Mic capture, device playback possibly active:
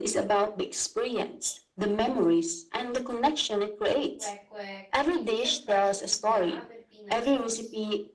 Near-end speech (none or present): present